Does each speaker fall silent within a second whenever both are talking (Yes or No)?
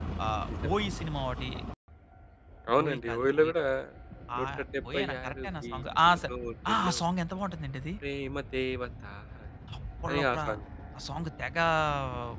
No